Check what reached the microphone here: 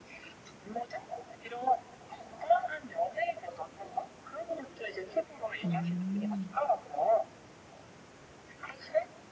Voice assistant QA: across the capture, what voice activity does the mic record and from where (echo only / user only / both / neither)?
both